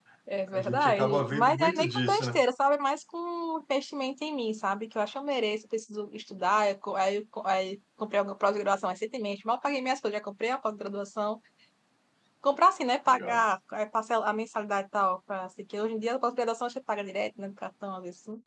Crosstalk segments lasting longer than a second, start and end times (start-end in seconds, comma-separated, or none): 0.5-2.4